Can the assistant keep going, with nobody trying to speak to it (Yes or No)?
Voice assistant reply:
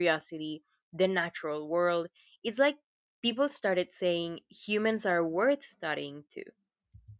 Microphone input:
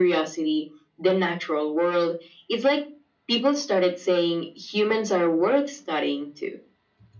Yes